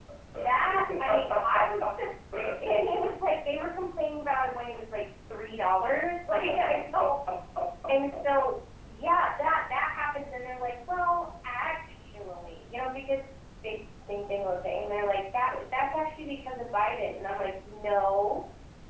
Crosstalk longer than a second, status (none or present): present